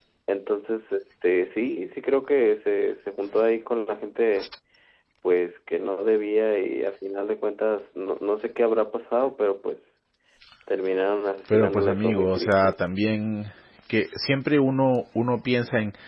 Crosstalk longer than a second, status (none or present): present